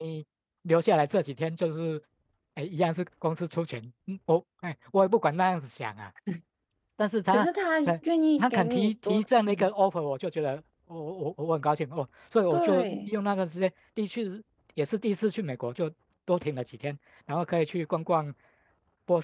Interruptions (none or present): present